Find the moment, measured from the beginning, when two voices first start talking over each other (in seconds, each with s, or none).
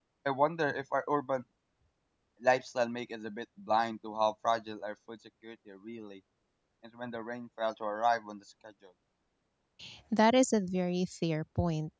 none